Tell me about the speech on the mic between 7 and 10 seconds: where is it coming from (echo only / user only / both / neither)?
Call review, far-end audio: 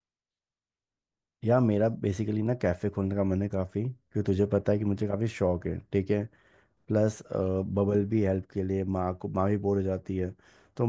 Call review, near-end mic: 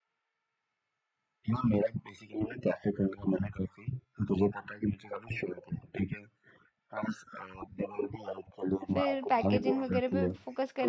both